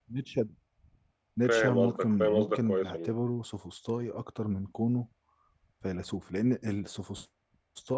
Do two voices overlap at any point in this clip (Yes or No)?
Yes